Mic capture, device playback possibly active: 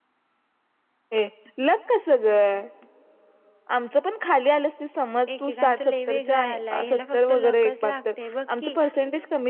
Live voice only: एकेकांचं लय वेगळां आलाय ह्याला फक्त लकच लागतय बघ की

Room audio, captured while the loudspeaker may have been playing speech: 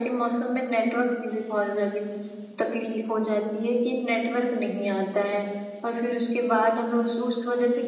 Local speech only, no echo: none

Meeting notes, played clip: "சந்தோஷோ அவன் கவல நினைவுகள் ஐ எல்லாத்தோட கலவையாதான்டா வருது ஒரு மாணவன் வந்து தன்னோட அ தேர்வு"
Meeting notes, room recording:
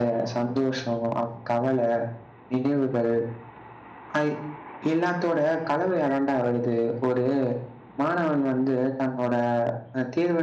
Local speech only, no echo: none

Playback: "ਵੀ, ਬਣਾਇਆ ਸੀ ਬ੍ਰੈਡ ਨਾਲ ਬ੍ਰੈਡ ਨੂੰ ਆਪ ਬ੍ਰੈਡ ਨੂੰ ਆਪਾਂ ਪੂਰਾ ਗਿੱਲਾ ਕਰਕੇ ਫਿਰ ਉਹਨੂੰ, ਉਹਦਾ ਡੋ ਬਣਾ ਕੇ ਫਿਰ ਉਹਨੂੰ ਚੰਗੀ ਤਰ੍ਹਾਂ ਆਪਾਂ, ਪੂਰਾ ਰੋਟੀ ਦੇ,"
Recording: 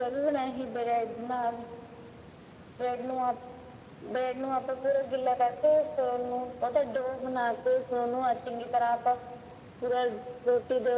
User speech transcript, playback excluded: none

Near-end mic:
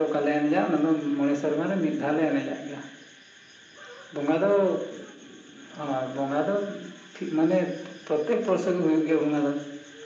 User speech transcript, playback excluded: none

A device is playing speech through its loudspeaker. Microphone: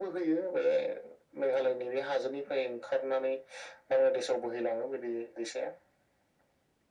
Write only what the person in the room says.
none

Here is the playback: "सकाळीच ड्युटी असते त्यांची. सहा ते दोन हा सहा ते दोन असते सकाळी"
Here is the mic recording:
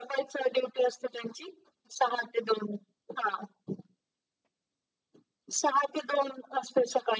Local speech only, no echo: none

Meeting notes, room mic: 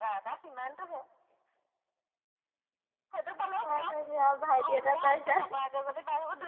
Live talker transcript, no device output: হয় ত আৰু ভাইটি এটা পাইছা।

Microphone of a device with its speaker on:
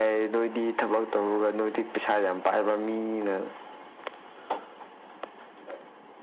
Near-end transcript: none

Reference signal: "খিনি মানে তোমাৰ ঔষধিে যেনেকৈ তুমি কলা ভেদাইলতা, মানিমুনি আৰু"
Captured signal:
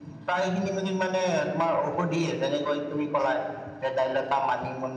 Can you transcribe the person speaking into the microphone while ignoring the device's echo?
none

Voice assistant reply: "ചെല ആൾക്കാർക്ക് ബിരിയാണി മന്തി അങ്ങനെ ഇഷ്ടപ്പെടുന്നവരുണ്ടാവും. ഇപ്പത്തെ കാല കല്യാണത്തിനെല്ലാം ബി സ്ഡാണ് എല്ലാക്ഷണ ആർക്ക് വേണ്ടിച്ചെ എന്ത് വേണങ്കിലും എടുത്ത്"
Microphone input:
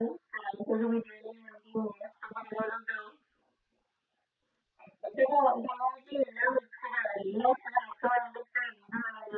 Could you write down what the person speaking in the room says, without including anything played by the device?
none

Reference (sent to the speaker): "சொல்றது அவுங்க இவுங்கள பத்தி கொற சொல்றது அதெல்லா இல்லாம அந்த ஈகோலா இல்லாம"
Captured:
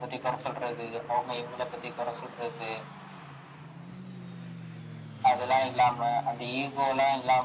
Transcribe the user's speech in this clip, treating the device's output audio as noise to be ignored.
none

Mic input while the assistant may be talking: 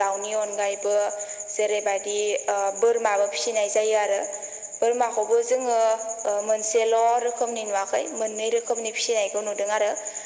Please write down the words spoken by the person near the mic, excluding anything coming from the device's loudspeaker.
none

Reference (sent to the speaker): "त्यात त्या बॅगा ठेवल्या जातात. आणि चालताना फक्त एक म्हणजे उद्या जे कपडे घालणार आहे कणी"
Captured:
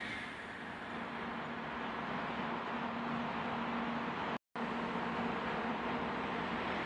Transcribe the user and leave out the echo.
none

